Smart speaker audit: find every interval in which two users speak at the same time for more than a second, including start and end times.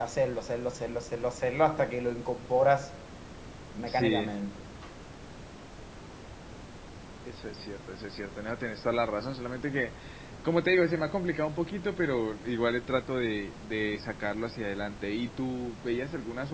none

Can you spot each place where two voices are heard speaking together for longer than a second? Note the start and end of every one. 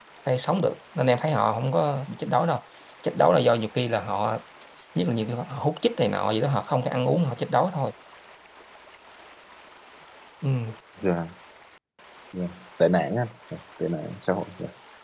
none

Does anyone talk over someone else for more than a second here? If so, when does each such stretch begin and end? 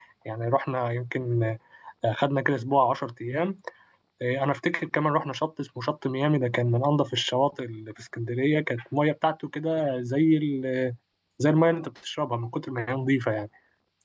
none

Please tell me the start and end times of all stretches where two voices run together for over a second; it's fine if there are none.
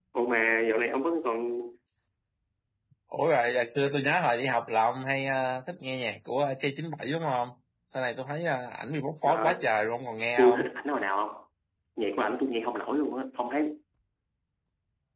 none

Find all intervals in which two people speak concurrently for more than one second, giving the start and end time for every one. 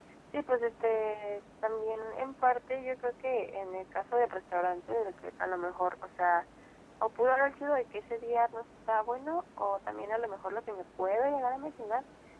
none

